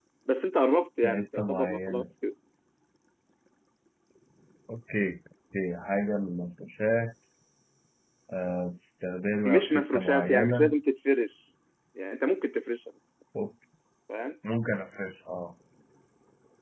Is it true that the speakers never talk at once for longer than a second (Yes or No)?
No